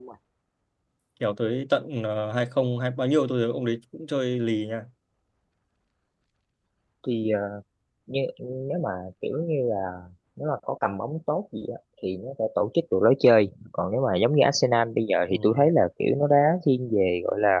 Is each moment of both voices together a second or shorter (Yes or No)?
Yes